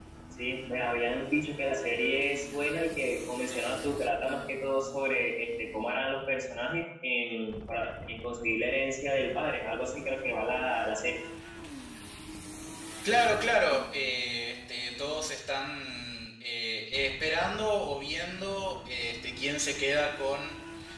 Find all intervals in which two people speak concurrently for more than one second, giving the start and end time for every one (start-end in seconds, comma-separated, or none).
none